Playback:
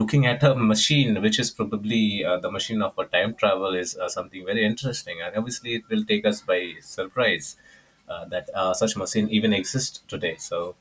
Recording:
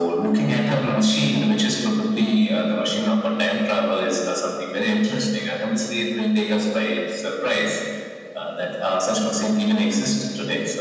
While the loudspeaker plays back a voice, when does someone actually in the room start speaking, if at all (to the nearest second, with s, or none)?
none